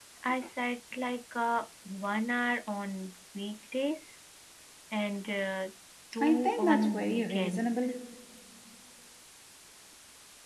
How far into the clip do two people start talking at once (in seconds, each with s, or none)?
6.2 s